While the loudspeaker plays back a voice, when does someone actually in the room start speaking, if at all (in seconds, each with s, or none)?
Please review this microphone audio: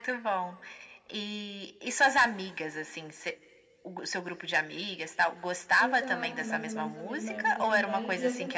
5.8 s